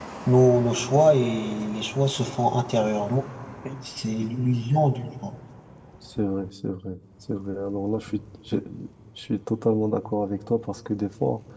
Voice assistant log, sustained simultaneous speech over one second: none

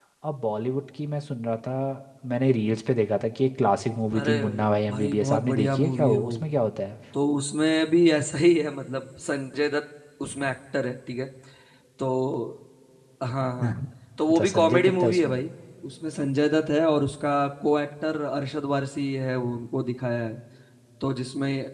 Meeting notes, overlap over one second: present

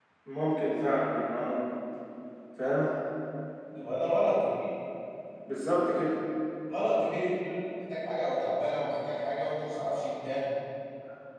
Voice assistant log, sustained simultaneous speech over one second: none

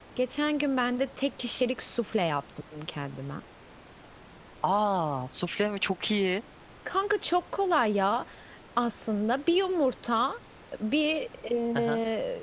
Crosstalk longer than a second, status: none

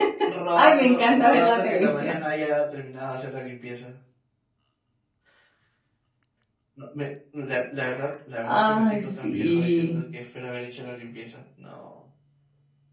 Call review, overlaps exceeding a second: present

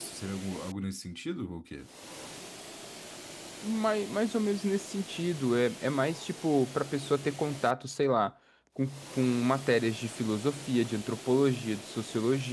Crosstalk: none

